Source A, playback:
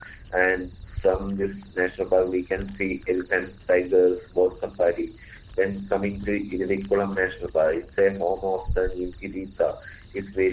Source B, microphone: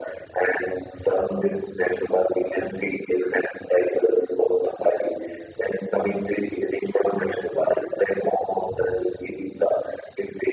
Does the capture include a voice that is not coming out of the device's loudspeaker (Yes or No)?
No